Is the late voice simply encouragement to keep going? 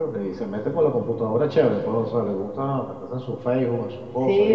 No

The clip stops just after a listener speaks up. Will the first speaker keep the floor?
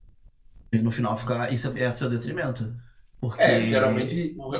No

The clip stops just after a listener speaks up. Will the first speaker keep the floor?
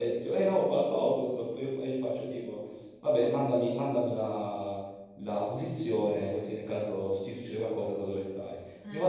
Yes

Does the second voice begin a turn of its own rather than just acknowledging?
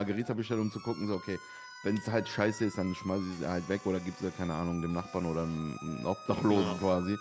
No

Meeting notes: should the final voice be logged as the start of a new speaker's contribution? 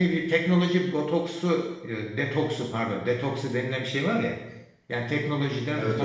No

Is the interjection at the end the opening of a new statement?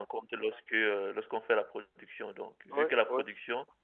No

